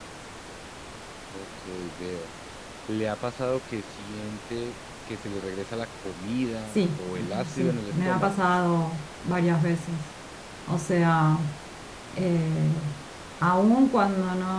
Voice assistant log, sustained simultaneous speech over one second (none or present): present